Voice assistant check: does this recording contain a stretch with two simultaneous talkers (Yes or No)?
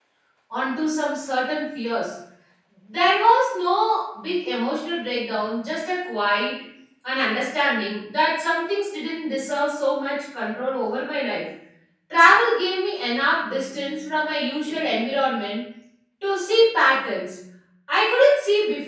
No